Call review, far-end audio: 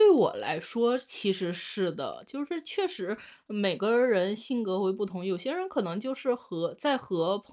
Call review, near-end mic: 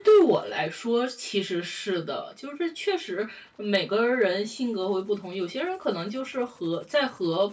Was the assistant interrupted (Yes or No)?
No